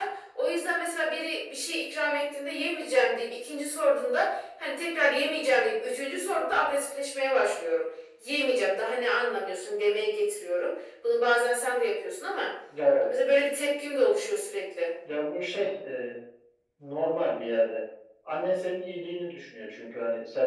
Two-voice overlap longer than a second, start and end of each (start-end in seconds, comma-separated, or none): none